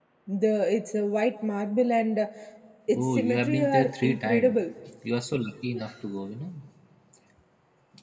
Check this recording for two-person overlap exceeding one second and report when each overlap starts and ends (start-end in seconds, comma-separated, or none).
2.9-4.6